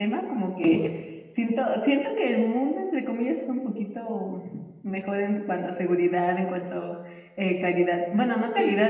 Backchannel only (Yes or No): Yes